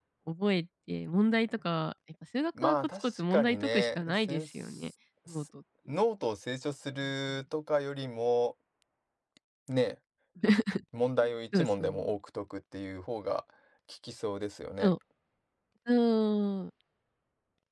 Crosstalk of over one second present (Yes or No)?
Yes